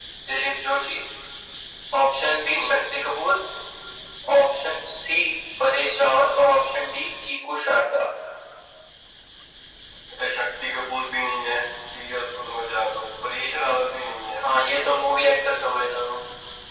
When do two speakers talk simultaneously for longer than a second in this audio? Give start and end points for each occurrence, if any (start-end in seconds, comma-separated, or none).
none